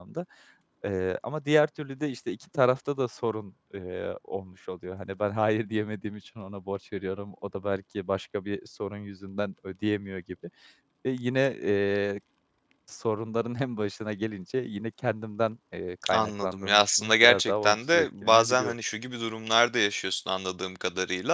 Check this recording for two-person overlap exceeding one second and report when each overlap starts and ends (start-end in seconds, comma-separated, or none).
16.1-18.7